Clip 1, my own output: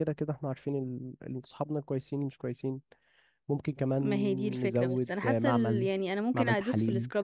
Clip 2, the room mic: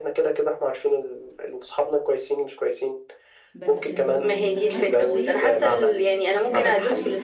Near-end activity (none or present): present